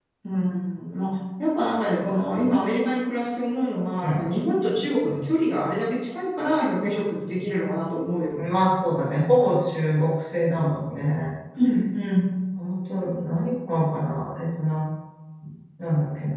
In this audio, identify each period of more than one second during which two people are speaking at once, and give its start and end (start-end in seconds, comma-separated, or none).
none